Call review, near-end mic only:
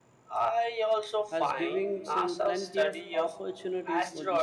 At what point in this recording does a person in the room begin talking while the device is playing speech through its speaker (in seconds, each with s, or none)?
1.3 s